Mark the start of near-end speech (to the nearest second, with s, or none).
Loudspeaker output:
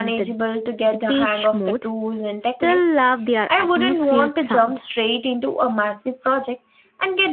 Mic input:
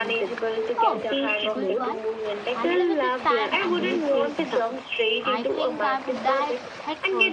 1 s